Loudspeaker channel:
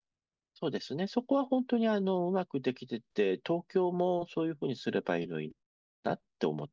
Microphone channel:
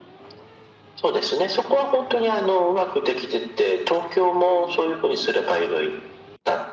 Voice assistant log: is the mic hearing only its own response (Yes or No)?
Yes